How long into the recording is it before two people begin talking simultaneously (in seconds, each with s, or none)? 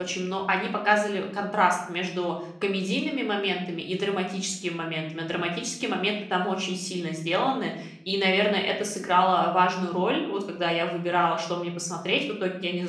none